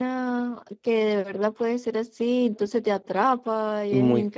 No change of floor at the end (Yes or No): No